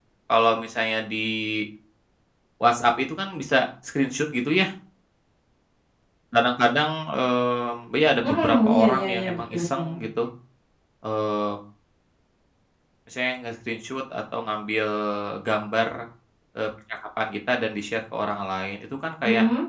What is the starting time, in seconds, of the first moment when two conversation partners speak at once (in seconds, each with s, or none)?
8.2 s